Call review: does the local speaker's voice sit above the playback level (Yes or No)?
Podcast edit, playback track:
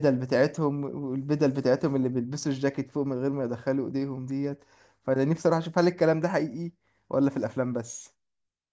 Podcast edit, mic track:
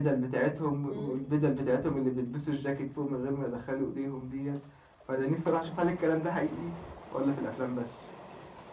No